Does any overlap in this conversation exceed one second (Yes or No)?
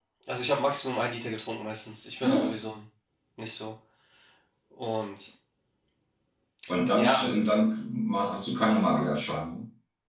No